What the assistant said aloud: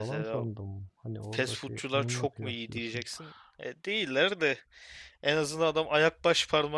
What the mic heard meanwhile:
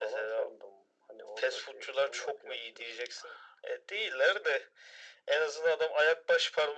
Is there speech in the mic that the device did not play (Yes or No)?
No